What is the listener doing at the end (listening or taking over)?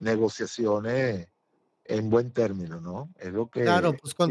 taking over